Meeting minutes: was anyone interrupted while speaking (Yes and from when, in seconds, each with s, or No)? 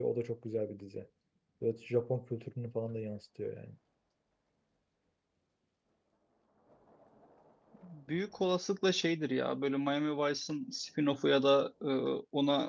No